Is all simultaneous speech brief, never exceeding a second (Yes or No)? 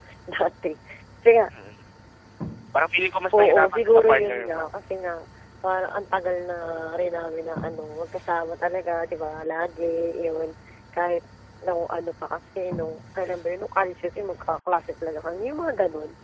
No